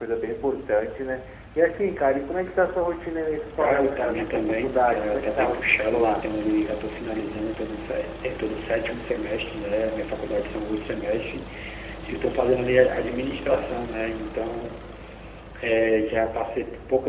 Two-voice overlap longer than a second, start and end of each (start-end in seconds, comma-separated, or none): 3.6-6.2